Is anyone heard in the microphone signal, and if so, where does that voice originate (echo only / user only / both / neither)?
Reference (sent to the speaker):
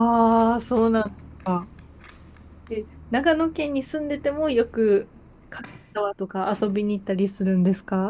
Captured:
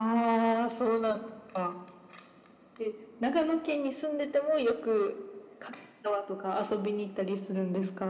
echo only